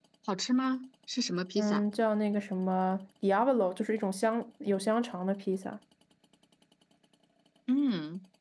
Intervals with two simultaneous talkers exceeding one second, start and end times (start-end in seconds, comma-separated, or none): none